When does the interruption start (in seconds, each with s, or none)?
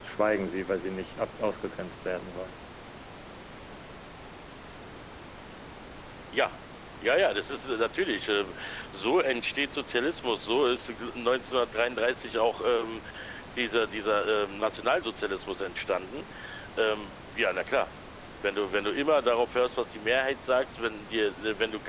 none